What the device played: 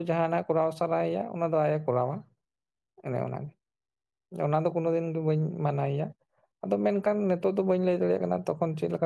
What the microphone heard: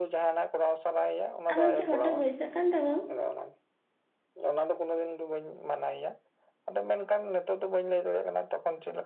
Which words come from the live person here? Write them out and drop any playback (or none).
ᱟᱢᱟᱜ ᱠᱤ ᱦᱚᱴᱚᱜ ᱵᱟᱹᱭᱥᱟᱹᱜ ᱠᱟᱱ ᱛᱟᱹᱵᱤᱱ?